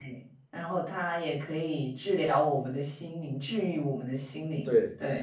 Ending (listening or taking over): taking over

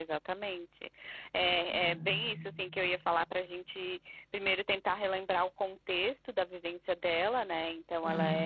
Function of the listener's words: listening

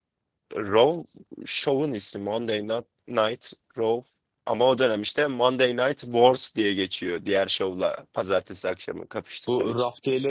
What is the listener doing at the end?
taking over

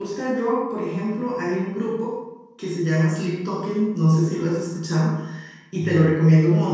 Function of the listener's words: listening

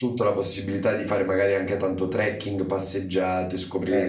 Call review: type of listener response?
listening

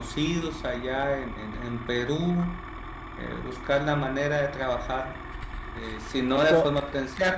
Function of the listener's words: listening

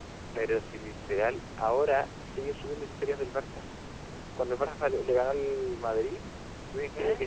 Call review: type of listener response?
listening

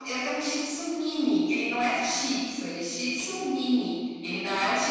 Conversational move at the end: listening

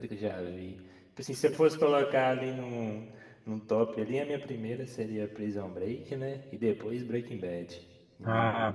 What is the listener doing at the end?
taking over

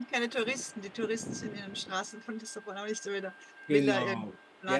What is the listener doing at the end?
taking over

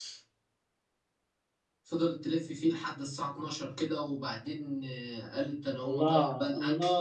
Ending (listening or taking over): taking over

